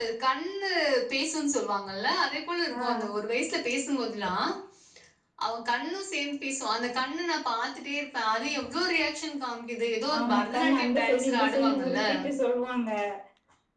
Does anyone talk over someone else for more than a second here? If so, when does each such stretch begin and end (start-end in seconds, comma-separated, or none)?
10.2-12.0